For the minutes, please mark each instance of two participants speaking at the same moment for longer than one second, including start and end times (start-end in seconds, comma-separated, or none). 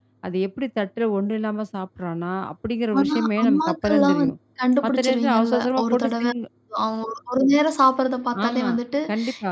3.0-4.3, 4.8-6.2